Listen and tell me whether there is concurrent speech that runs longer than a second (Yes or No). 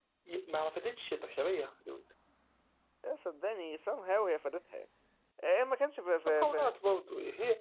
No